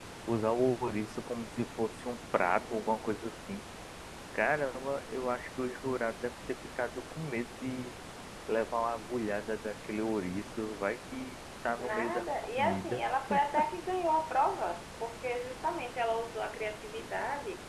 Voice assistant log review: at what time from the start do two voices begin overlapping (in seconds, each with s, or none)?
11.8 s